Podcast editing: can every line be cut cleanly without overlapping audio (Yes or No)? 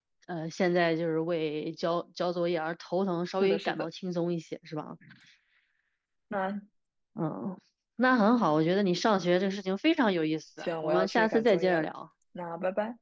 No